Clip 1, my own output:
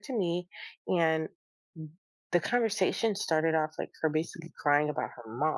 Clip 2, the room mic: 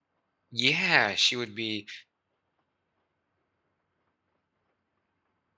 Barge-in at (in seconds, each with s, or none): 0.5 s